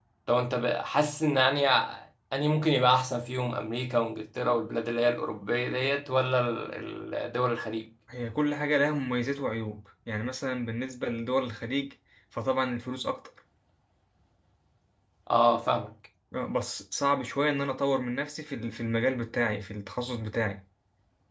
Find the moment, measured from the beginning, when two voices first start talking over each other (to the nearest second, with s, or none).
none